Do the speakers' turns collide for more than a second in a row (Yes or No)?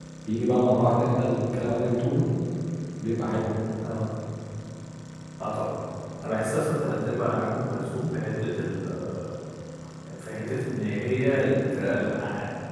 No